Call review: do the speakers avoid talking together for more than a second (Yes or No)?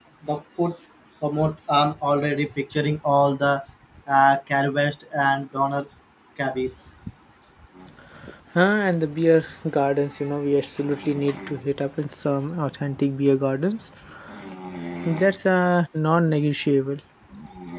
Yes